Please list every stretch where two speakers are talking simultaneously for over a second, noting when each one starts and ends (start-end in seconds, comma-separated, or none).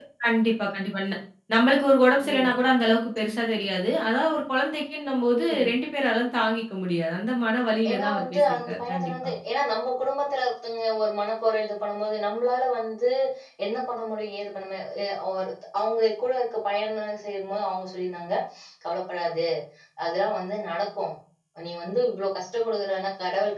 7.9-9.3